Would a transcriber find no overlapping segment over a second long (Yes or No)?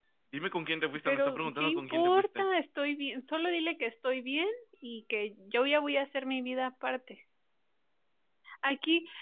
No